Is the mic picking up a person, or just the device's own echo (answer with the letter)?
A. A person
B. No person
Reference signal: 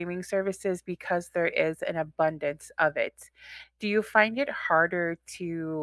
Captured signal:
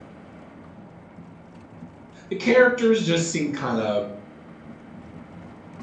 A